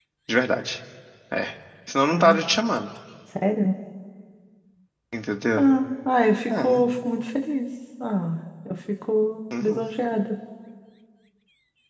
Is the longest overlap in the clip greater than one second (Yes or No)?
No